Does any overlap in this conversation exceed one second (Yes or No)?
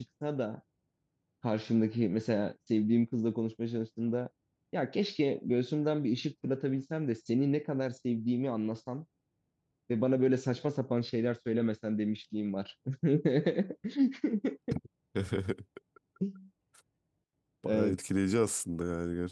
No